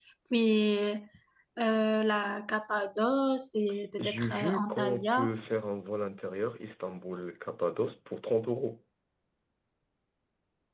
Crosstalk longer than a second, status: present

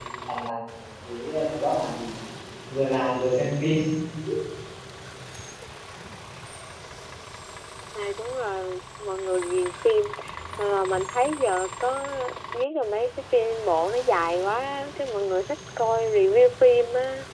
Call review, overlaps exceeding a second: none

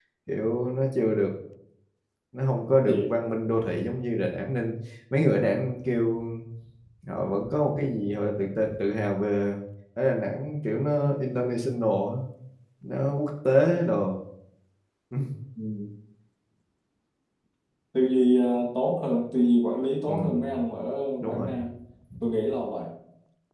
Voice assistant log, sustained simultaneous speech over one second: none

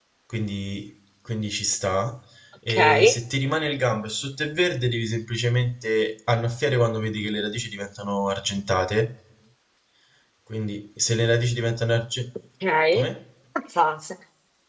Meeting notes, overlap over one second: none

